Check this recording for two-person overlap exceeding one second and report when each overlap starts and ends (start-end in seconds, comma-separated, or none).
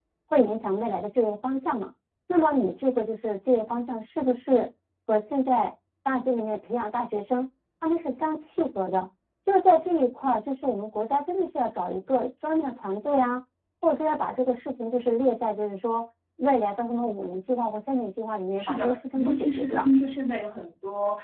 18.6-19.9